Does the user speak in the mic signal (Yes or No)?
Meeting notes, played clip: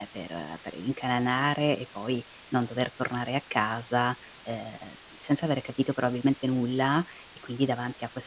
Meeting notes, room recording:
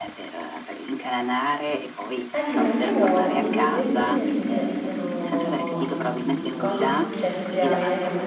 Yes